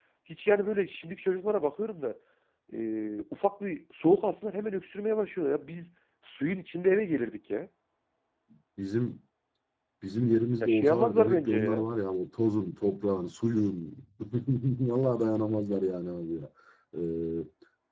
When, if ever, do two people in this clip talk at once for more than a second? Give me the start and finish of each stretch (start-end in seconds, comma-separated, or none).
10.6-11.8